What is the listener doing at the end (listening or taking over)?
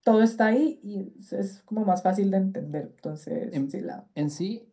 taking over